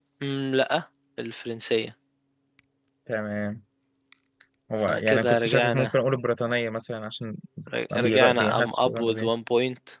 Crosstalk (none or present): present